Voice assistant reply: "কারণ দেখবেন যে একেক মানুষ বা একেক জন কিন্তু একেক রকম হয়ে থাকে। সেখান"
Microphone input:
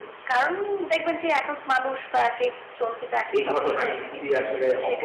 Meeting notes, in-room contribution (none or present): present